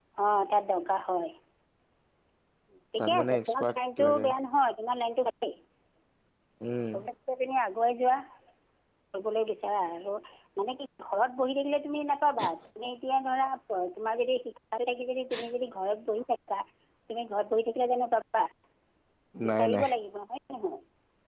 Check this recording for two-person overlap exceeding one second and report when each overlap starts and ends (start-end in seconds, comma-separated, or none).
3.0-4.3